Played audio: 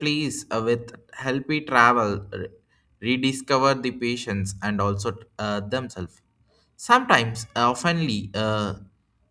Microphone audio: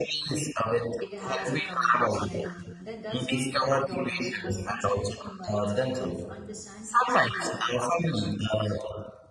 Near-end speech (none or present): present